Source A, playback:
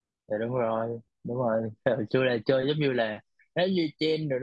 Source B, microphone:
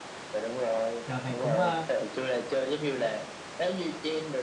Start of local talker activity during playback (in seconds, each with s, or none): 1.1 s